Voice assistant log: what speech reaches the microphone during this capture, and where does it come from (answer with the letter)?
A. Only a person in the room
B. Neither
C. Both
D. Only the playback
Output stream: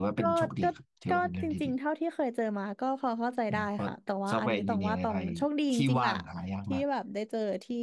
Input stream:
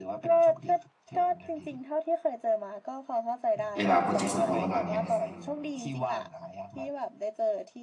C